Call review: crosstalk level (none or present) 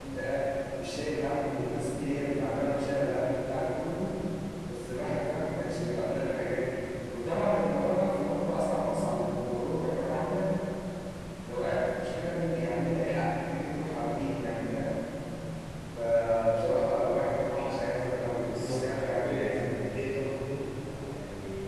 present